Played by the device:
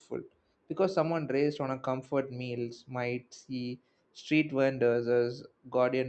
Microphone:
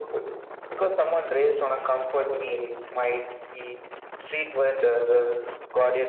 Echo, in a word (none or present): present